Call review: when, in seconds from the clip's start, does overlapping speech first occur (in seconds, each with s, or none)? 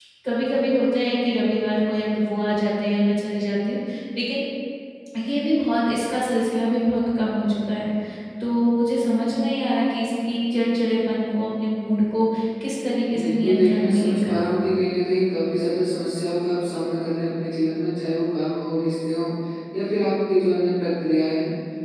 13.1 s